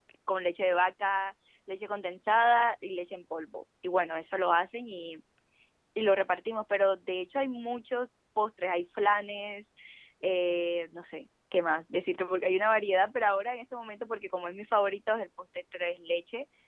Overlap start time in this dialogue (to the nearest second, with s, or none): none